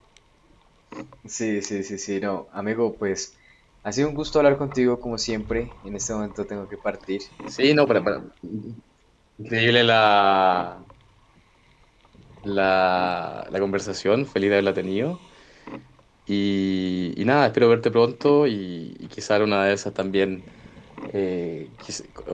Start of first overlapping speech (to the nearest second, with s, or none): none